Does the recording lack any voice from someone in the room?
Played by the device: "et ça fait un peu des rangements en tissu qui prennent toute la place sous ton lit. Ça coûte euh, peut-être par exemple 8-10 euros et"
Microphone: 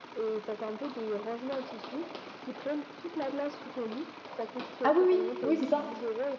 No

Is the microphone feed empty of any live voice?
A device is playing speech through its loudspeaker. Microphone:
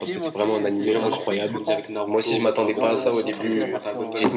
No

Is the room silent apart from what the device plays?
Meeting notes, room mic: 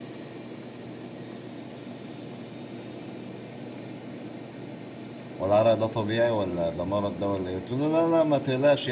No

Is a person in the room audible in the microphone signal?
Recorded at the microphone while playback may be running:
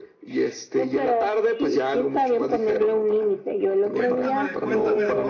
Yes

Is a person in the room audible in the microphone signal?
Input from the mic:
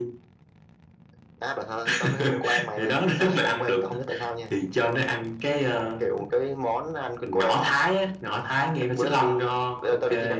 No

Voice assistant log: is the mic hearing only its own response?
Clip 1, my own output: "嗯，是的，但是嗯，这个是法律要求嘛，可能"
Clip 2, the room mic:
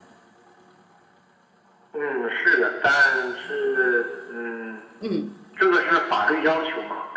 No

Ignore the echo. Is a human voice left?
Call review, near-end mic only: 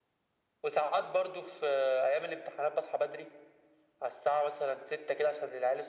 No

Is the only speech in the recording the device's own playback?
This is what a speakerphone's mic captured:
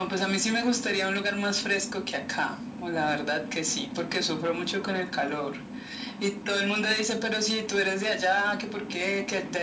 Yes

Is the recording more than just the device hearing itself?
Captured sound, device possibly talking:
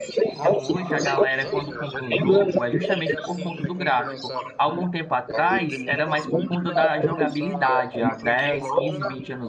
Yes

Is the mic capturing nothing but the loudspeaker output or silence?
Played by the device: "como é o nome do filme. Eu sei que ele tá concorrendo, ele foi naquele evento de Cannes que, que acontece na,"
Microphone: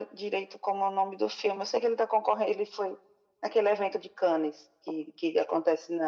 Yes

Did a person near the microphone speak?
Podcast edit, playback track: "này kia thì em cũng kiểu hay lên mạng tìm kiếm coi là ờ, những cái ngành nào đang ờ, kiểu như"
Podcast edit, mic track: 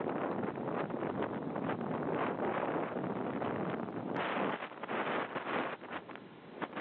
No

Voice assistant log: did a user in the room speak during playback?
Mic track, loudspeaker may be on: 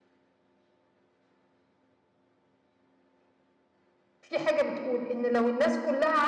Yes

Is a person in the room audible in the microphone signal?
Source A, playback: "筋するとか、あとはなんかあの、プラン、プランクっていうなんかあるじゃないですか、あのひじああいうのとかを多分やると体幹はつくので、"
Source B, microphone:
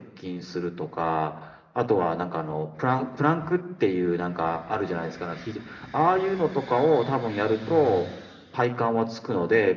No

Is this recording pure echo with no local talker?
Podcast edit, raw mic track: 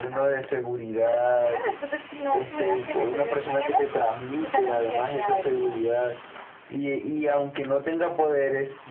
Yes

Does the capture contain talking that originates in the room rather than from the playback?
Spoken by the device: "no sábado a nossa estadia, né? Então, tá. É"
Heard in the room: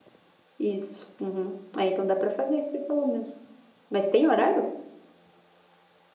Yes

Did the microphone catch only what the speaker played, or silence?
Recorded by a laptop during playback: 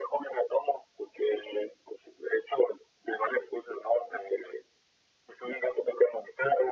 Yes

